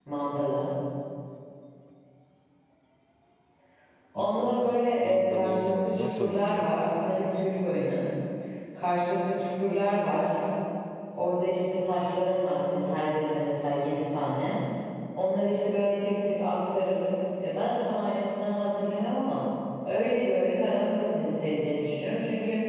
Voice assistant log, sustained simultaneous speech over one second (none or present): present